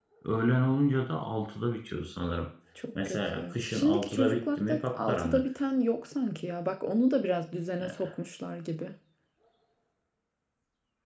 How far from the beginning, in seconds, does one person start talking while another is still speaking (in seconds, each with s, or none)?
3.0 s